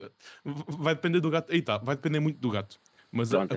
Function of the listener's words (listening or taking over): listening